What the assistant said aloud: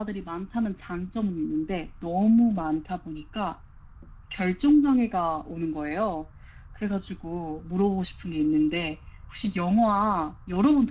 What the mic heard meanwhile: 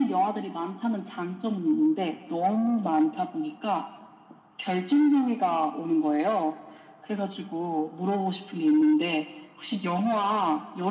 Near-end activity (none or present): none